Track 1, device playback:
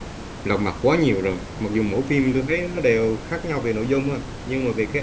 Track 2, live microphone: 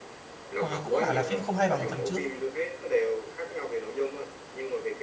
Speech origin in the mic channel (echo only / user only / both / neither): both